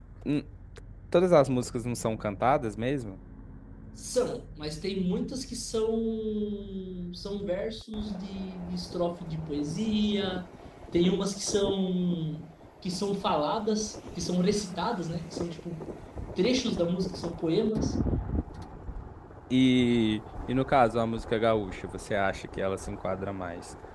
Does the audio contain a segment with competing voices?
No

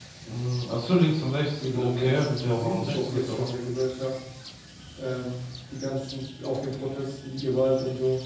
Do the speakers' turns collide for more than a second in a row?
Yes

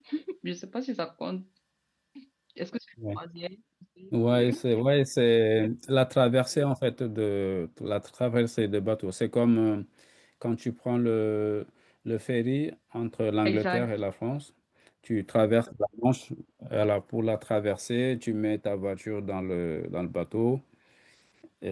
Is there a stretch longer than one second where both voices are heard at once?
No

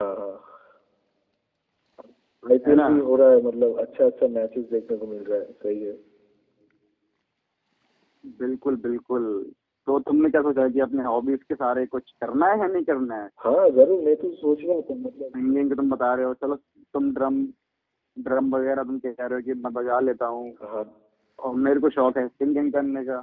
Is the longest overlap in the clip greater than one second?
No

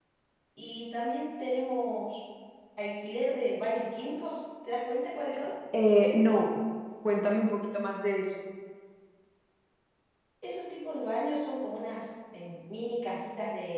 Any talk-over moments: No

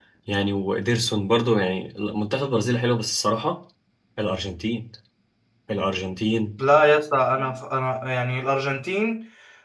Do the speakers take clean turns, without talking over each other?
Yes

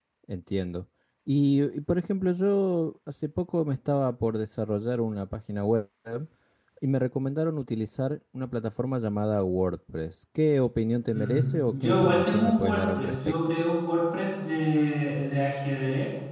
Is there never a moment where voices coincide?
No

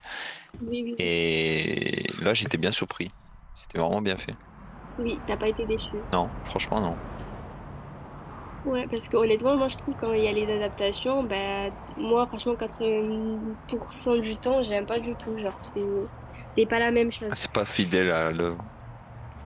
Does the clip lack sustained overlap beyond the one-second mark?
Yes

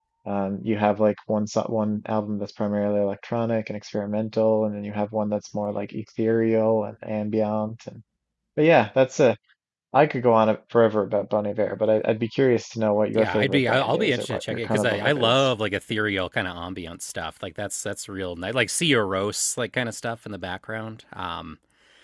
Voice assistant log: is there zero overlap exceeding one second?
No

